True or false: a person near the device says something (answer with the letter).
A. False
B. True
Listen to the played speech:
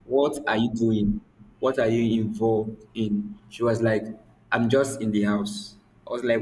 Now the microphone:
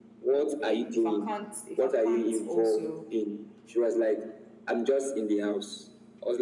B